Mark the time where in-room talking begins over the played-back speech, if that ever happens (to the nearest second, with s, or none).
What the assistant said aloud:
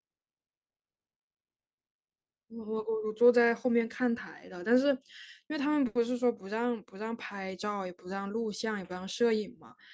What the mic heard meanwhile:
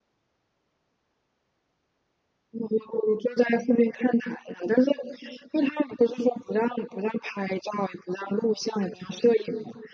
none